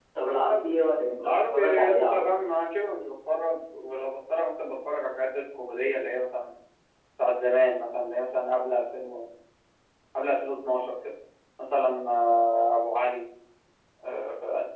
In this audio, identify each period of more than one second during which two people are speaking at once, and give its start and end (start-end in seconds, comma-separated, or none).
1.1-2.4